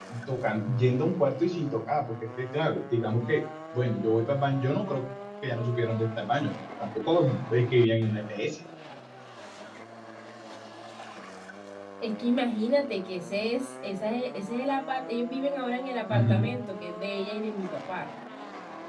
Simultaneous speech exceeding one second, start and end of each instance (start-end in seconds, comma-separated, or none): none